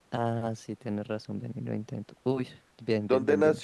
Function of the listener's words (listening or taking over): taking over